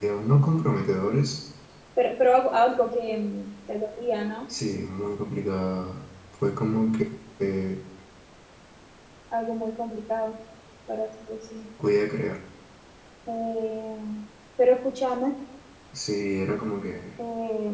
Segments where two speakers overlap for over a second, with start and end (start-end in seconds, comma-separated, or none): none